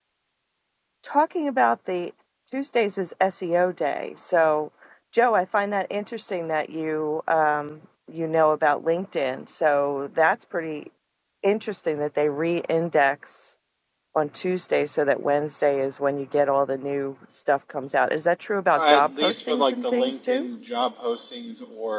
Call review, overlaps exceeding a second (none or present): present